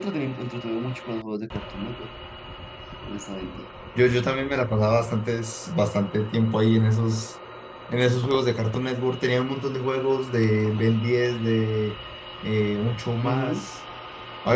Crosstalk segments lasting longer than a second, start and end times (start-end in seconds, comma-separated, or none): none